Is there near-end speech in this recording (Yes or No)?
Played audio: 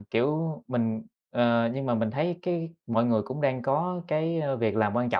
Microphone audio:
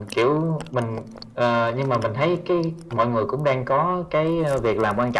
No